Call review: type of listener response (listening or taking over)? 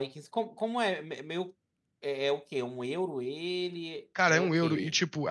taking over